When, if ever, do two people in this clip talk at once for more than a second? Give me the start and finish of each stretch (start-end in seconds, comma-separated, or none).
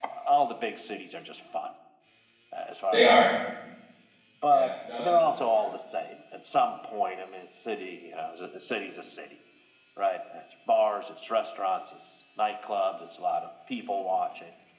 4.5-5.7